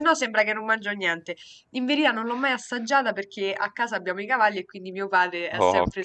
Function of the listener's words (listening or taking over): listening